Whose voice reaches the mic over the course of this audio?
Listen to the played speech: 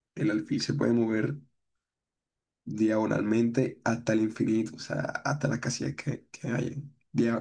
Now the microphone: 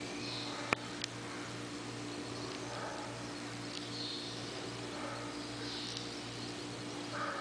neither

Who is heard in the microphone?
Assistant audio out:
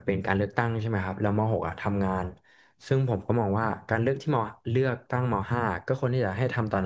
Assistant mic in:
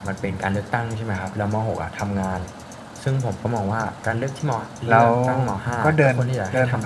both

